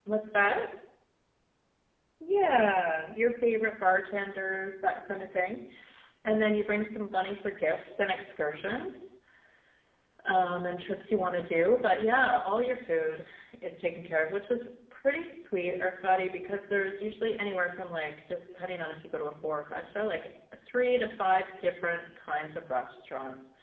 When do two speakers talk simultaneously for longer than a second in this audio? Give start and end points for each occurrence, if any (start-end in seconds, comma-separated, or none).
none